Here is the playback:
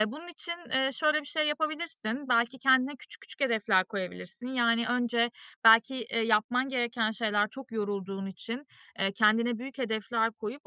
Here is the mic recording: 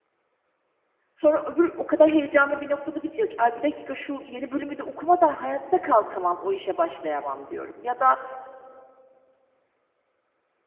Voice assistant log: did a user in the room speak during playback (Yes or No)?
Yes